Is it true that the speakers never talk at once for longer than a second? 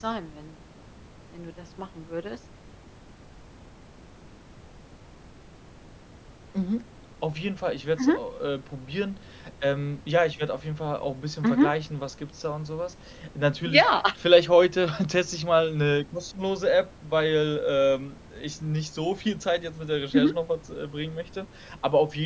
Yes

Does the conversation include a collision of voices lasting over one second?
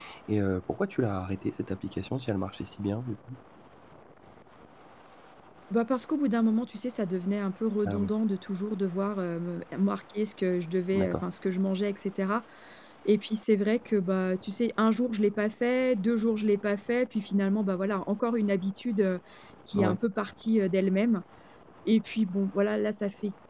No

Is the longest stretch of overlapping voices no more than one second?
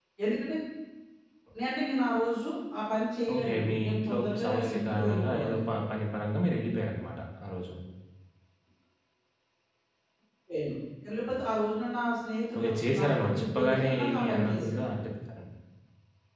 No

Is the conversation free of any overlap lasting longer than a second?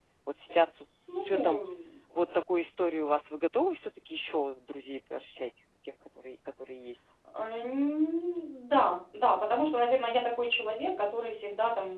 Yes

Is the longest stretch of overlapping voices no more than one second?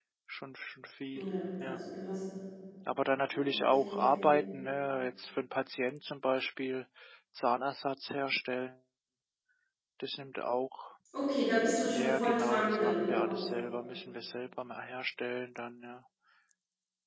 No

